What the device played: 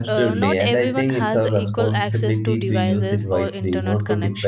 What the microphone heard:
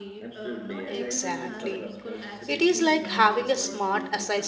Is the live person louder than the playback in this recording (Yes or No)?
Yes